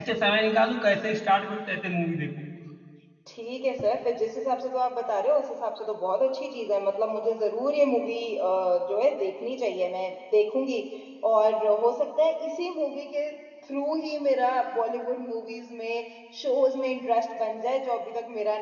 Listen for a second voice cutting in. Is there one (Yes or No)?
No